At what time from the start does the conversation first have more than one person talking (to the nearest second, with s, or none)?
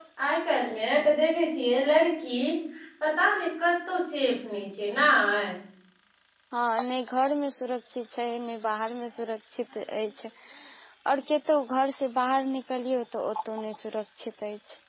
none